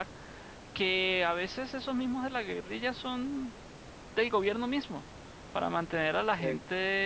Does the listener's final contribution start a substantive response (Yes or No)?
No